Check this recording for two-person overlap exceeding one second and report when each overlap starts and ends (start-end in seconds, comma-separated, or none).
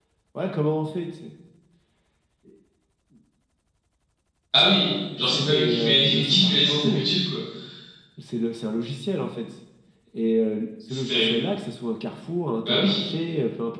5.2-7.0